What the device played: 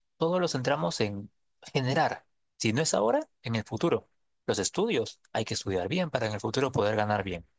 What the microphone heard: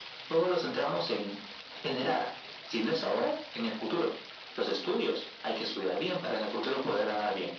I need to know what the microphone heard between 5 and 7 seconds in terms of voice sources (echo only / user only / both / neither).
echo only